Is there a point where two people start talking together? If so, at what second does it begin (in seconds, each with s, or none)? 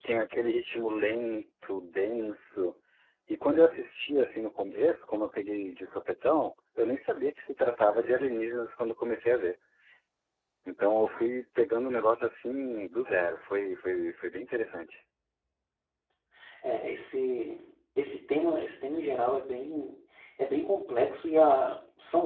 none